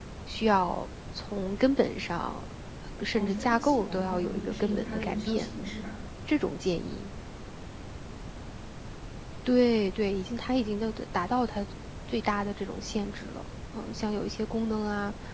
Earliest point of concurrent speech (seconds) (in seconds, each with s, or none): 3.1 s